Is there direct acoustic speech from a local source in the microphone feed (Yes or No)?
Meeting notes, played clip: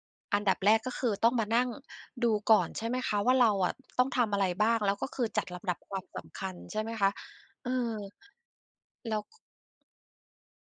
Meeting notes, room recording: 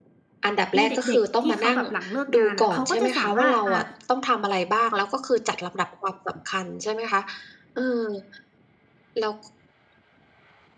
Yes